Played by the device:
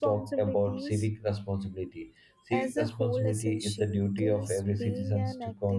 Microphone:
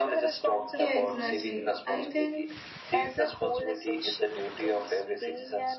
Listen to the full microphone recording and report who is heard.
both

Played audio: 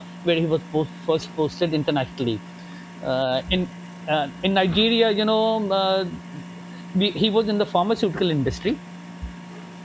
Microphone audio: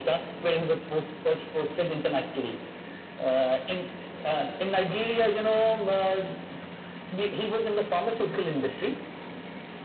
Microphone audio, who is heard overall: echo only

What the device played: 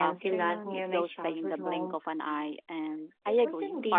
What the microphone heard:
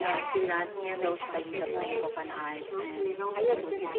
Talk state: both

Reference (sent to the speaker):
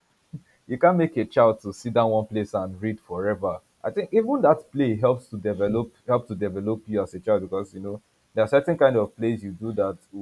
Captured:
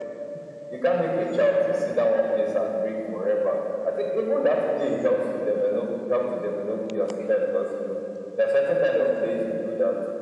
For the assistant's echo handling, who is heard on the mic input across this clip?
echo only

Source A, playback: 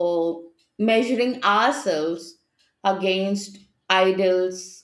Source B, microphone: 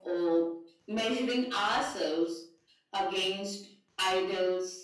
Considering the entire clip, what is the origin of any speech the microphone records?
echo only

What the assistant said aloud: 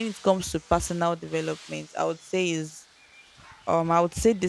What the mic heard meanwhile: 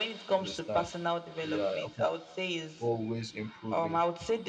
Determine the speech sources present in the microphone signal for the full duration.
both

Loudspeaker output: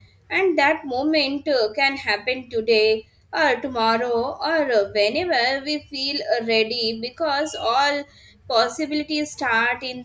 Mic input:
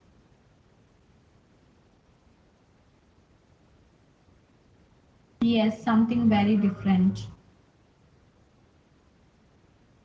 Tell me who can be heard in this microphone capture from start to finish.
user only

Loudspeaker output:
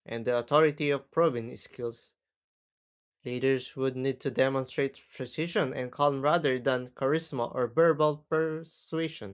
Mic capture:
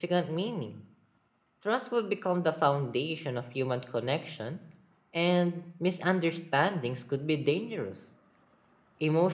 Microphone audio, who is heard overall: user only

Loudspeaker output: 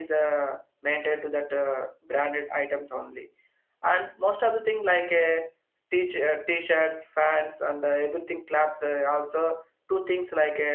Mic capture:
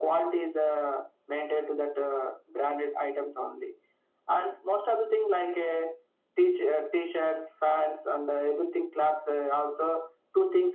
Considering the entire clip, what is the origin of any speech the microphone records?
echo only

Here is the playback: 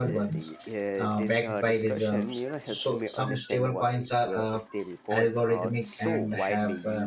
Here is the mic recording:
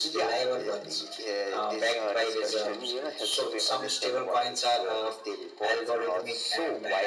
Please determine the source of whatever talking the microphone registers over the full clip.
echo only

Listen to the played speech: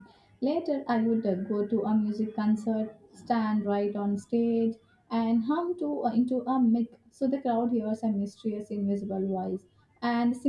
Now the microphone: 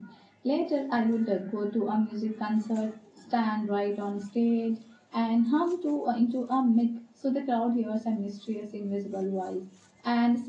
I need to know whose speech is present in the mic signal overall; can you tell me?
echo only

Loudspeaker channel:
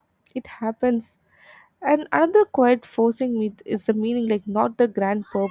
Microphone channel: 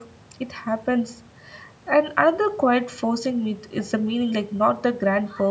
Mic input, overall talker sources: echo only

